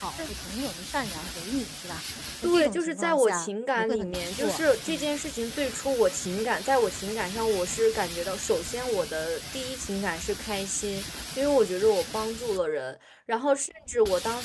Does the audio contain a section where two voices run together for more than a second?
Yes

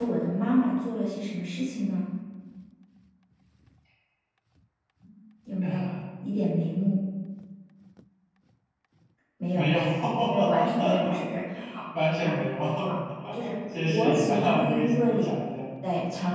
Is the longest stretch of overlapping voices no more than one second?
No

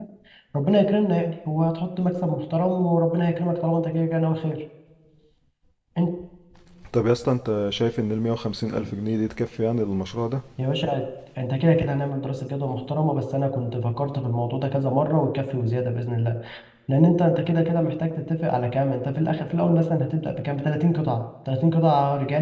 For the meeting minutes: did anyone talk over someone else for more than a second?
No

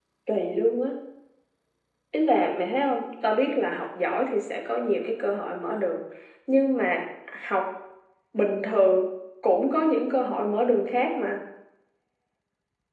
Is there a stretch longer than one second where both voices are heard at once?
No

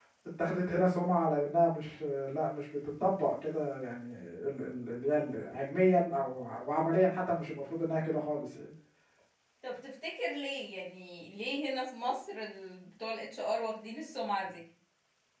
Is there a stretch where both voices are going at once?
No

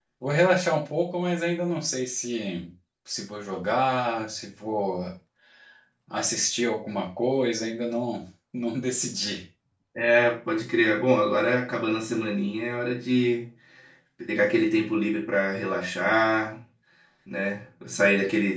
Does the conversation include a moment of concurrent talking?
No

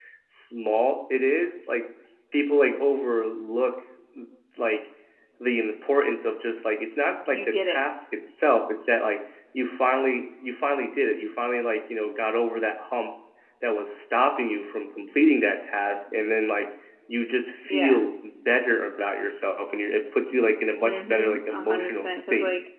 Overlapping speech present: Yes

